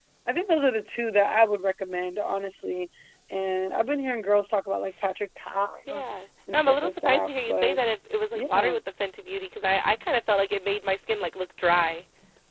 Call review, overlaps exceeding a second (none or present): present